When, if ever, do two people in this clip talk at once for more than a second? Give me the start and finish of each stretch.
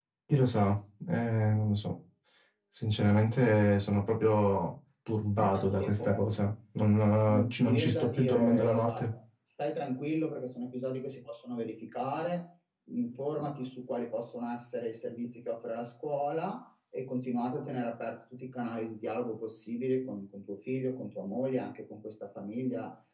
7.2-9.1

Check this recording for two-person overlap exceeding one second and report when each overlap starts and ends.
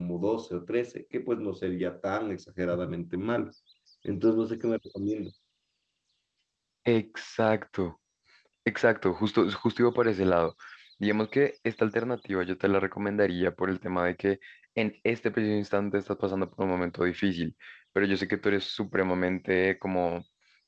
none

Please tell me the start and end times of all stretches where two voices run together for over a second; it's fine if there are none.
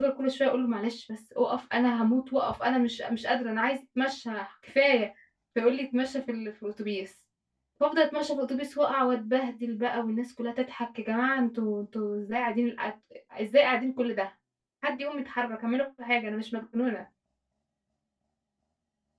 none

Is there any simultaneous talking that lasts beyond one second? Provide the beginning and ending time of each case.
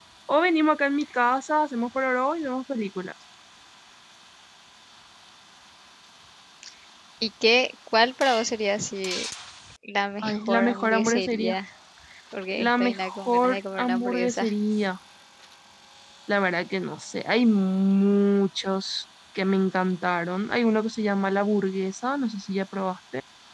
10.2-11.6, 12.6-14.5

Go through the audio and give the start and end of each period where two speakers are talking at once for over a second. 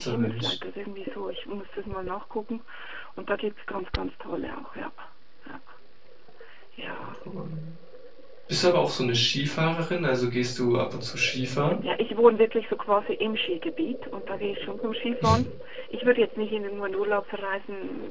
none

